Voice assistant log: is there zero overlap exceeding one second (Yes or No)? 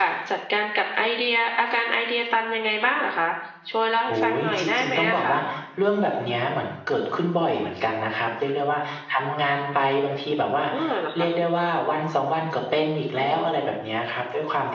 No